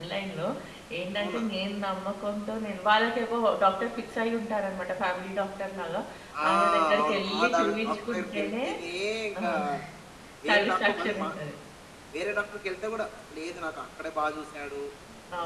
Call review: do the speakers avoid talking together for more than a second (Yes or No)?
No